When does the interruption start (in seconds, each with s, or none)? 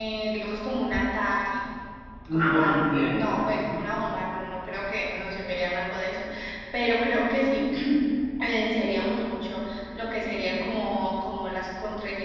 2.3 s